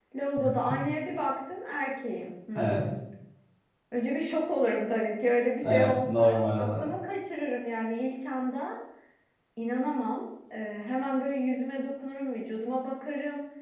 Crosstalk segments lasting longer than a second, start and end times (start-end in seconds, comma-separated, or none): 5.6-6.9